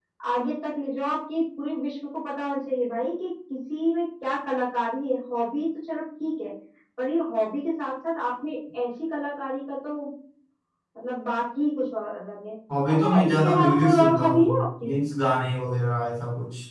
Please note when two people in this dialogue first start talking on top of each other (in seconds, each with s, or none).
12.7 s